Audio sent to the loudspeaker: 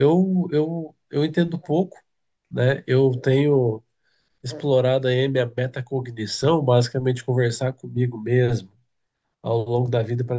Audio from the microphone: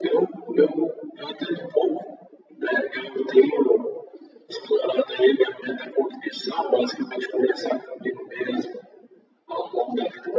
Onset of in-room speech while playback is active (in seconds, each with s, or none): none